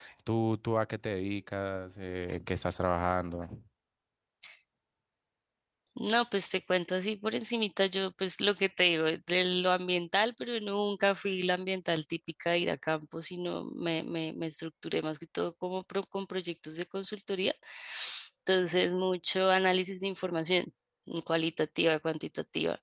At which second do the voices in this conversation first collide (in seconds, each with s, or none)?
none